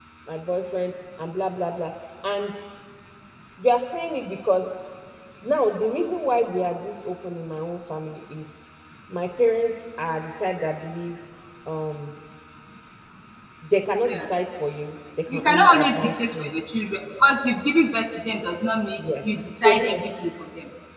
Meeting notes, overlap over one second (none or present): present